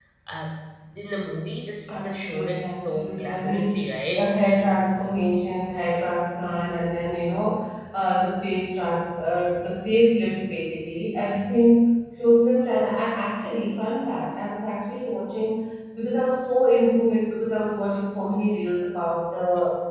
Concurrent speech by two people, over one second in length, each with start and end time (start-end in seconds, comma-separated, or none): 2.0-4.2